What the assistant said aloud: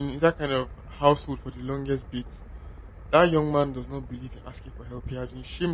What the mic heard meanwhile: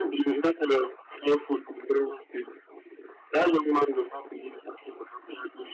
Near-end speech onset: none

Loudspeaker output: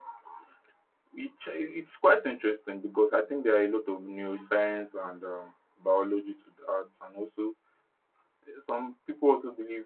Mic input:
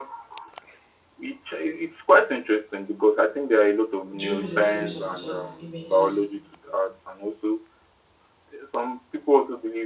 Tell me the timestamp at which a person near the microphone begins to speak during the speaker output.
4 s

